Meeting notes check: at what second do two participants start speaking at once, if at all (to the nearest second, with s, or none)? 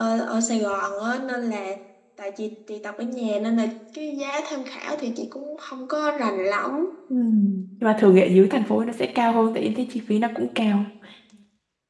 none